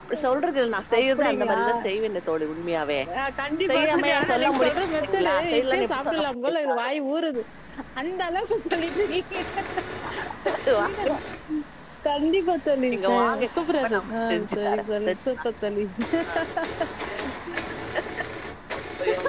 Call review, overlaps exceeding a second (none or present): present